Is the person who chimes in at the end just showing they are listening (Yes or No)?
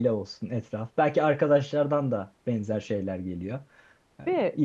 Yes